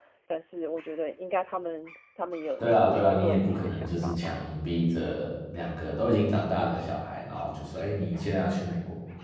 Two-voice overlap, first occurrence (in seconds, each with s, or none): 2.6 s